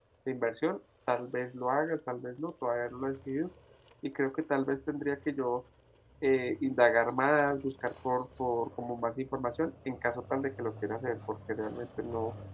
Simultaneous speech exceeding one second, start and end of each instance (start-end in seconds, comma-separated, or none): none